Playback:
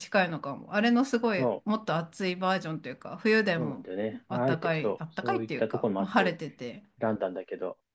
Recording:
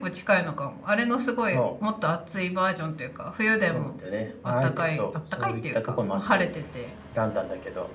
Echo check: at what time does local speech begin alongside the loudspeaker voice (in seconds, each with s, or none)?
none